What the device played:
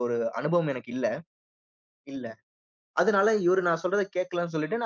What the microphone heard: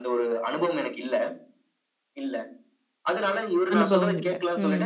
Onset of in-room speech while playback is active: 3.7 s

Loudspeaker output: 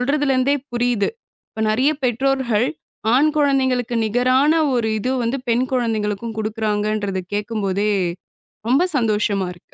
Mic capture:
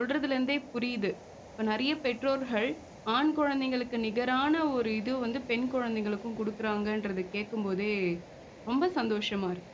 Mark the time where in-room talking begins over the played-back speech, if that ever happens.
none

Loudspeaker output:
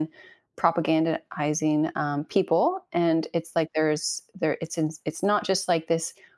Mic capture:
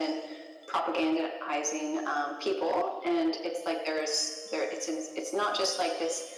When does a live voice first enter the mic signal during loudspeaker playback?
none

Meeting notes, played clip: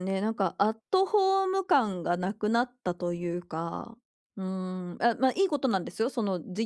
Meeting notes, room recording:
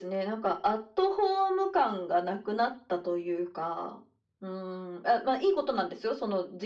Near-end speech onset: none

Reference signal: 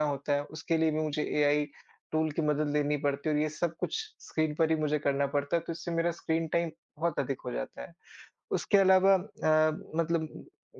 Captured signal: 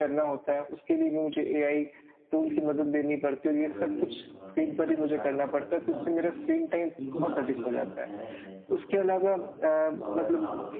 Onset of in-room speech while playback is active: 2.4 s

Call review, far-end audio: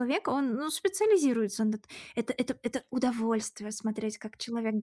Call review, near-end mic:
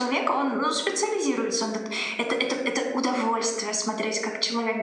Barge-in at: none

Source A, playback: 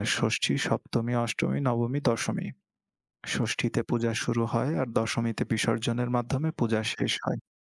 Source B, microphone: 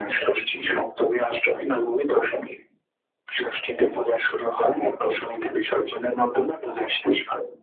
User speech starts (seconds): none

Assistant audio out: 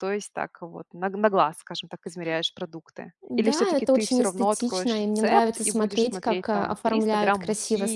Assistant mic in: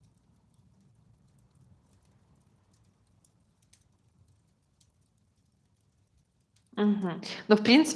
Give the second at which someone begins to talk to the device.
6.8 s

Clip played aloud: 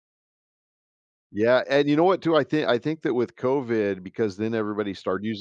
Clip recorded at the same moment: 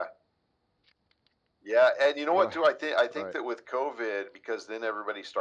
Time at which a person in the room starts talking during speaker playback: 2.3 s

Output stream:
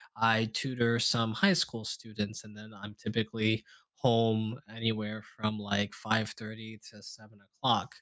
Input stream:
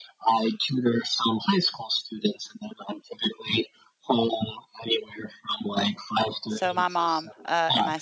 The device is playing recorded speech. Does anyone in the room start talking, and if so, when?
6.5 s

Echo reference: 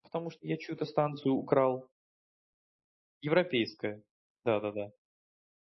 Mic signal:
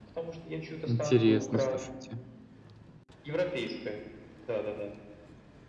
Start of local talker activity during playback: 0.9 s

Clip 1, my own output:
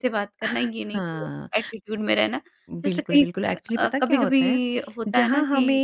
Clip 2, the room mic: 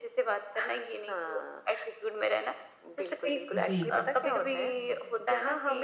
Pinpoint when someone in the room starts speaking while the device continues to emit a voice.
3.5 s

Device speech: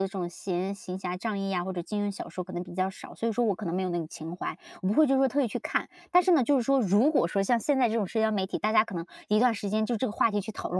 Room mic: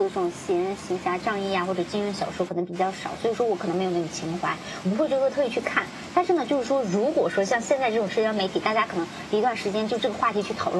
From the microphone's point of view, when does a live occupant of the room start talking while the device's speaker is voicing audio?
none

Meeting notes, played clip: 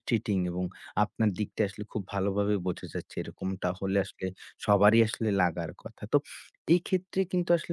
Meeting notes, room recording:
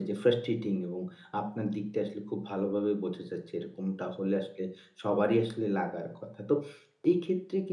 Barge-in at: none

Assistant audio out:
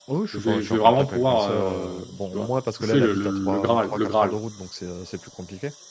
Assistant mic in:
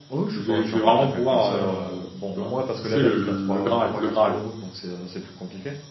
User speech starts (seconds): none

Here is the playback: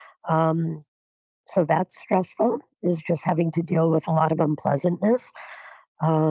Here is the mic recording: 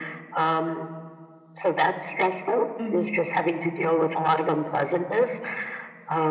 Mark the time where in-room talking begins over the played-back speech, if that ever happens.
2.8 s

